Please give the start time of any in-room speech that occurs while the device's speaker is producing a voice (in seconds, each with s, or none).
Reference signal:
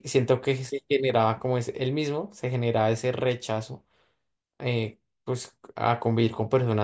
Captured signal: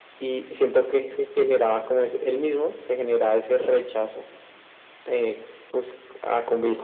none